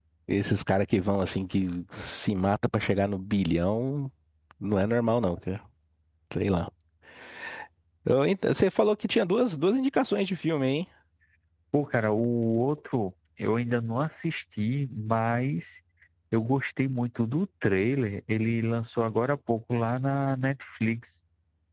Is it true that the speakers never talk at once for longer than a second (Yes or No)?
Yes